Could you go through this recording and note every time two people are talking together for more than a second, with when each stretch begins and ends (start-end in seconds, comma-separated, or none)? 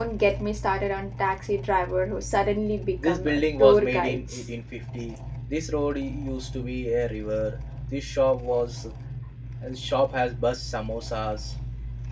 3.0-4.4